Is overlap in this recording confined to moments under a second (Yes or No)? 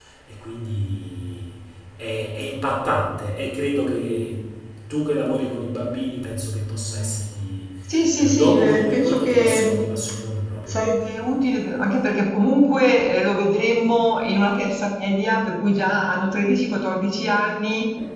No